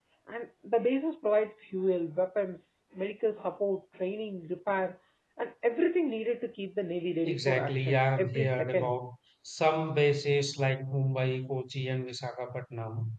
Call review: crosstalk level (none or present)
present